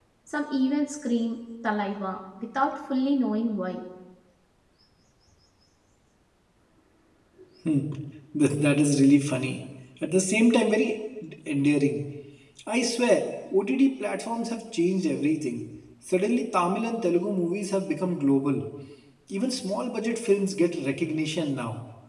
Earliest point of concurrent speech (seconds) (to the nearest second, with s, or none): none